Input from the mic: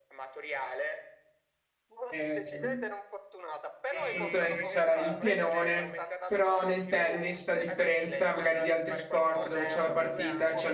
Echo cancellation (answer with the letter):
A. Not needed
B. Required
B